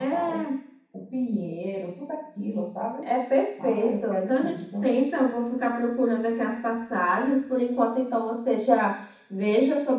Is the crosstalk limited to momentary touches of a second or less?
No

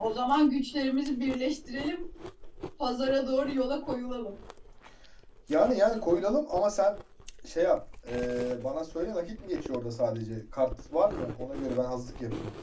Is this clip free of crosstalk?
Yes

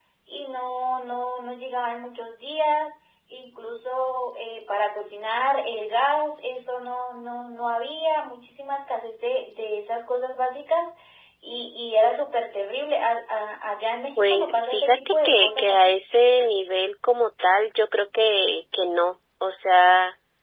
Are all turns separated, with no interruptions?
No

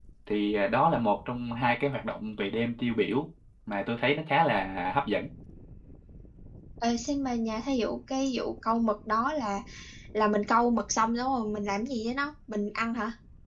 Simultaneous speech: No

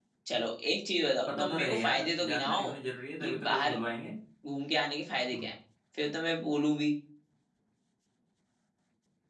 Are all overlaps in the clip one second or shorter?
No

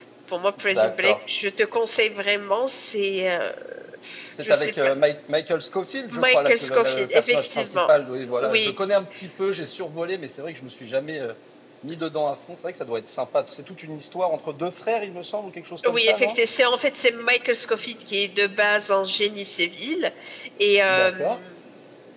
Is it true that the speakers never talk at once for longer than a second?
No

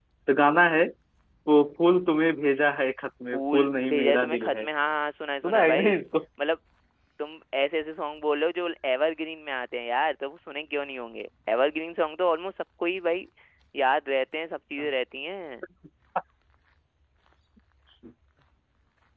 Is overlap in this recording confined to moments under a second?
No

